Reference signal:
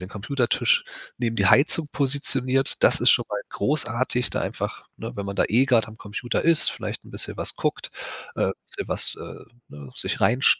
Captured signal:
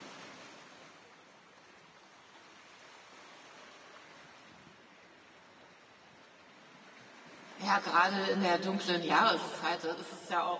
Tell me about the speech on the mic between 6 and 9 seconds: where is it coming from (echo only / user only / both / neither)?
user only